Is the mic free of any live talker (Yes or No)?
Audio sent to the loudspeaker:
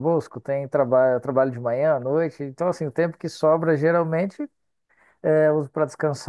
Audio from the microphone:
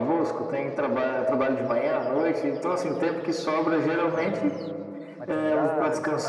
No